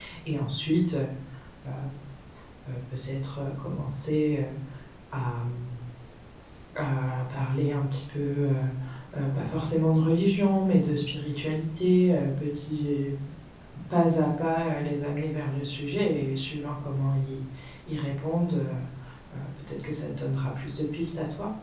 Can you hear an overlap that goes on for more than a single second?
No

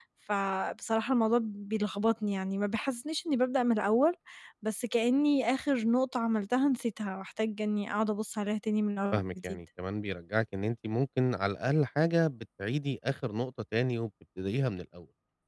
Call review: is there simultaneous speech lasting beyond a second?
No

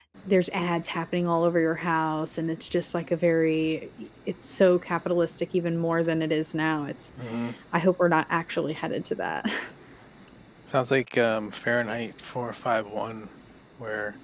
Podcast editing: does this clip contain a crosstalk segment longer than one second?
No

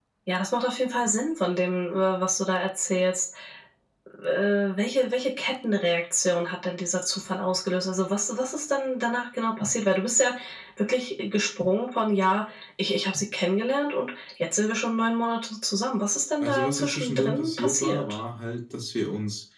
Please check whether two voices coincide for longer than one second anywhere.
Yes, from 16.4 s

